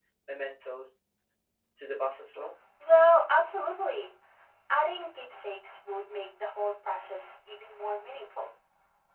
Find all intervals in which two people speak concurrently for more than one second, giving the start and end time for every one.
none

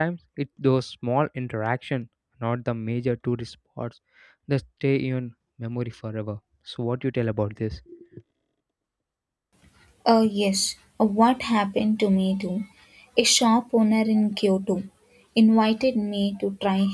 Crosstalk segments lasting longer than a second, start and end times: none

